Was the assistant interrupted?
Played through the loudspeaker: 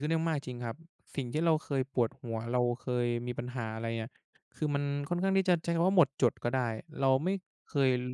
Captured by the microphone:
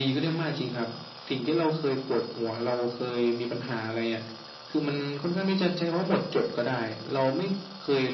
No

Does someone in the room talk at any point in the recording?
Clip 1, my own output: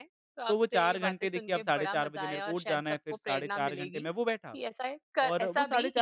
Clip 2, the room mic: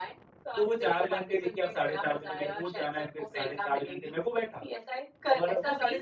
No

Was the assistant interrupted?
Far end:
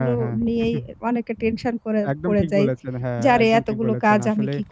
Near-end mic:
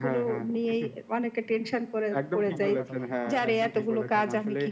Yes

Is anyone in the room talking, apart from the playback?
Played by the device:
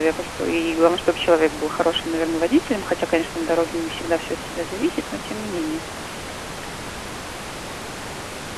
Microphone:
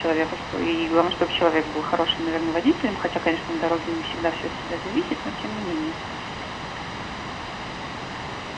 No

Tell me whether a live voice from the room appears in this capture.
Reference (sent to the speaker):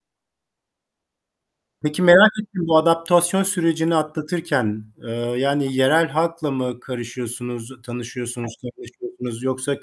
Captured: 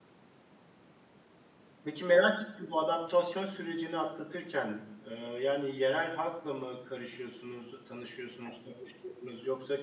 No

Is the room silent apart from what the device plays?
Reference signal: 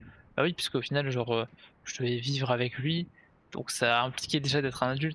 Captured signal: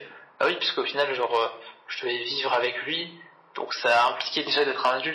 Yes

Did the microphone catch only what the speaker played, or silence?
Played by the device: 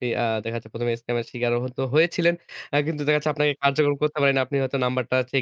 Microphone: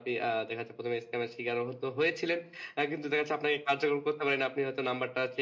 Yes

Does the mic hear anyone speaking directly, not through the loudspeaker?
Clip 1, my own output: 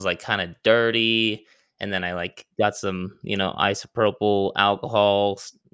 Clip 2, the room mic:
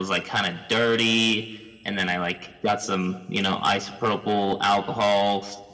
No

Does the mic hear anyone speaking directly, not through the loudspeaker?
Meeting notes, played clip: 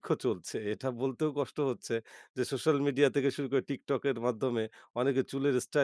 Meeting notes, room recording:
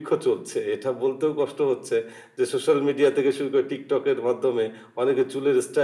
No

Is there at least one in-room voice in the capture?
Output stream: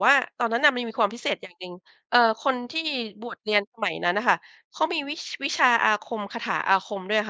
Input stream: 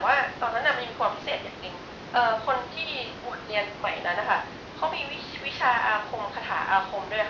No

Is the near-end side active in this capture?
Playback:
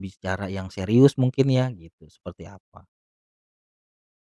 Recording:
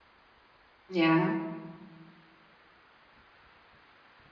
Yes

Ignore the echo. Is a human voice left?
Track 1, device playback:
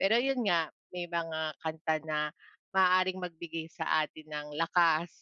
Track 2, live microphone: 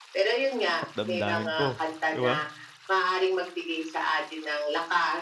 Yes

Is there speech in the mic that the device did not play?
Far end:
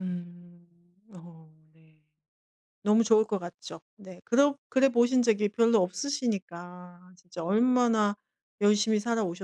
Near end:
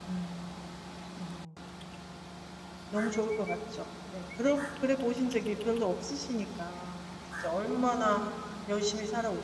No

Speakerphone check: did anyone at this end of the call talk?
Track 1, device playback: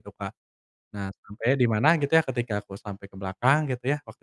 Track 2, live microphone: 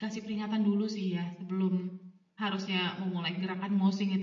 Yes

